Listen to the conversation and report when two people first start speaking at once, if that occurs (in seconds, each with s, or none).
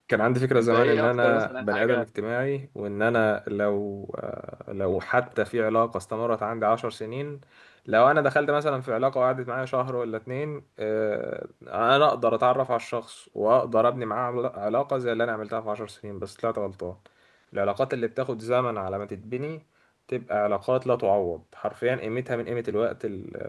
0.6 s